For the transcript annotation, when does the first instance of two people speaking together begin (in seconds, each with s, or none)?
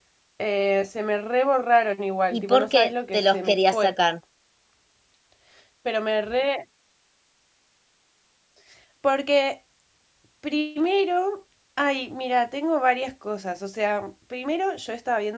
2.3 s